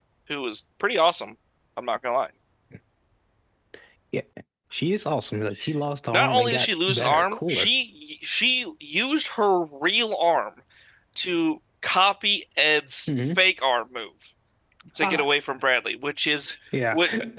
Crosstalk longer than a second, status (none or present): present